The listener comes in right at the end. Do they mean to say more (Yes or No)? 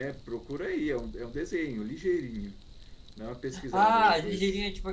Yes